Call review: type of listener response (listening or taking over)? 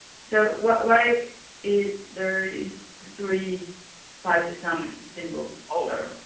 taking over